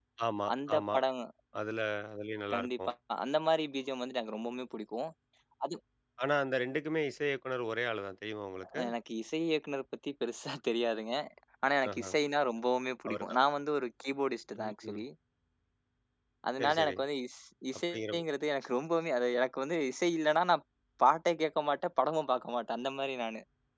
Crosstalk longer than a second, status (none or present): none